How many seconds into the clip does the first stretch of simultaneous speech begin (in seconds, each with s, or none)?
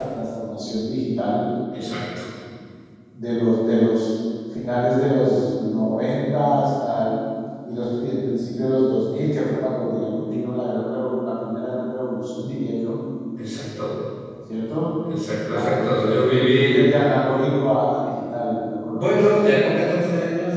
15.5 s